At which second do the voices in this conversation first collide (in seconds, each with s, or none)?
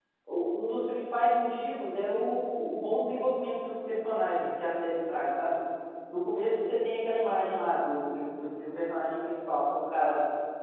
none